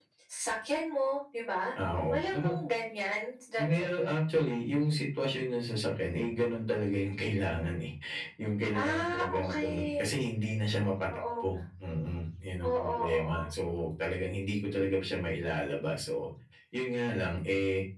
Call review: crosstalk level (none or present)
present